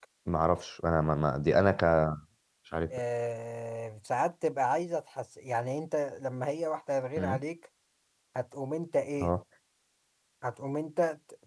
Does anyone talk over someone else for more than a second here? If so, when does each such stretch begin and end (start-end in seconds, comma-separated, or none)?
none